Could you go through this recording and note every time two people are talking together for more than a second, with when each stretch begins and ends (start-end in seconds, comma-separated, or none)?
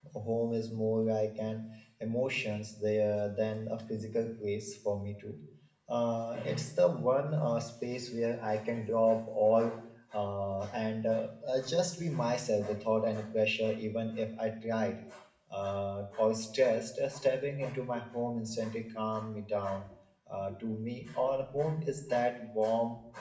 none